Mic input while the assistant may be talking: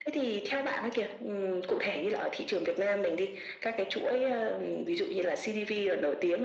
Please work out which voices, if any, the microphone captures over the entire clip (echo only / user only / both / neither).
echo only